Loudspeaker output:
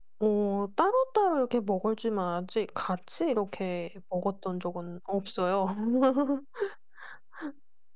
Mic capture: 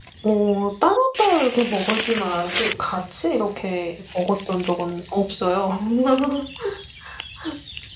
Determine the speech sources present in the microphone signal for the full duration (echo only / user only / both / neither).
echo only